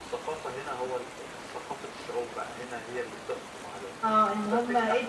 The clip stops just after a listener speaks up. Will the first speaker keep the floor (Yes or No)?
No